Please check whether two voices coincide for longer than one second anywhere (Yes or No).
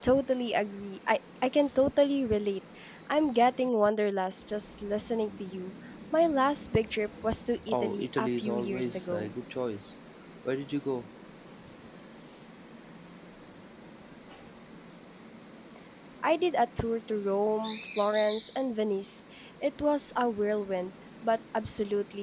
Yes